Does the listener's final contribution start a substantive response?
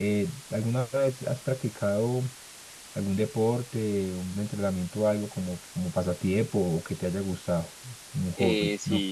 Yes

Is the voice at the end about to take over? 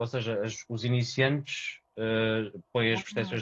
No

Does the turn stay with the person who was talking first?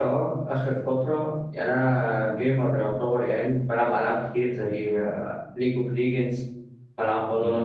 Yes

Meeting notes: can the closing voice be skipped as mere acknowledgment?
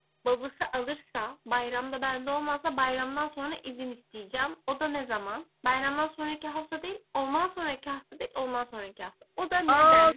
No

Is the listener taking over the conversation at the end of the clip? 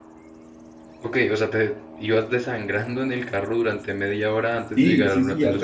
Yes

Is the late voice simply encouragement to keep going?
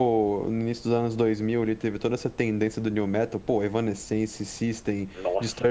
Yes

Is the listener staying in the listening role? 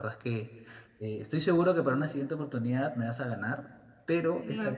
No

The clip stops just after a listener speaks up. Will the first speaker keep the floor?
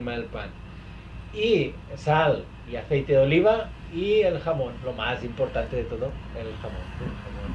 No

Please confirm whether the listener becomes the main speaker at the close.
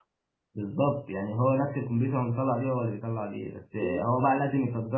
No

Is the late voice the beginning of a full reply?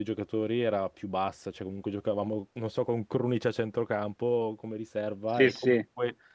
No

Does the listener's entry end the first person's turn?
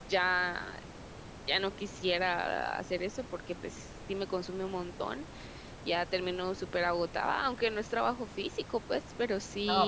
Yes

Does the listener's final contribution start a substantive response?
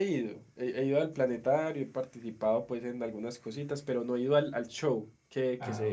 No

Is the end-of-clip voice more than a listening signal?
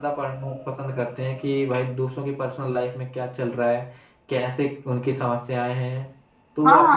Yes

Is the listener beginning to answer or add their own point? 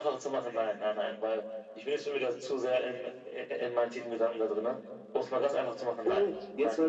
Yes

